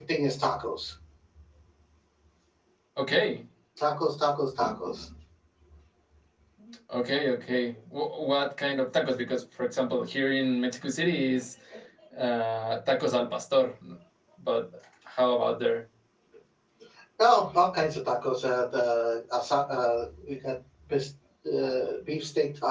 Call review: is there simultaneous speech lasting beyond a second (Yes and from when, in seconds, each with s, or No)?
No